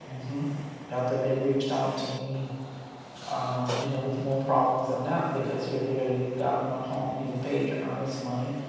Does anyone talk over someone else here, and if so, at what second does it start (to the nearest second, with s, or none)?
none